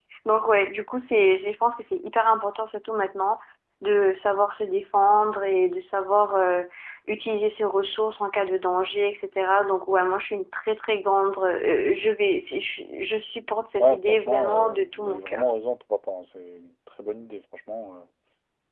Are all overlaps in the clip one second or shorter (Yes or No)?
No